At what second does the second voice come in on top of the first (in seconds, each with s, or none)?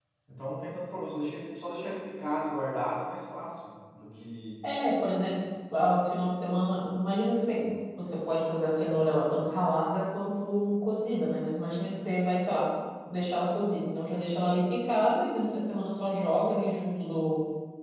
none